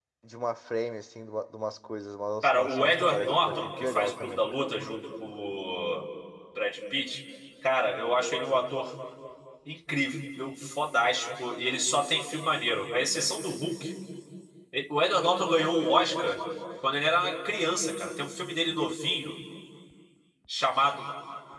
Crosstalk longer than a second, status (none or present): present